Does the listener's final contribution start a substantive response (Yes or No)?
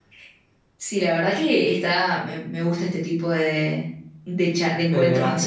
No